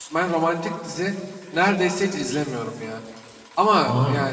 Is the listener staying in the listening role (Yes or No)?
Yes